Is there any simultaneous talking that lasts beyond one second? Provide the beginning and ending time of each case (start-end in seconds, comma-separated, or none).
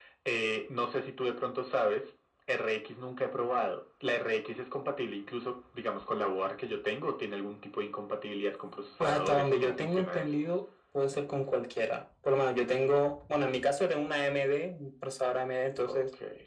9.0-10.3